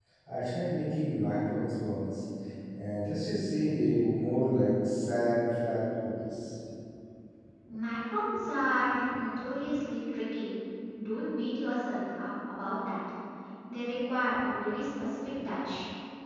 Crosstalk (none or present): none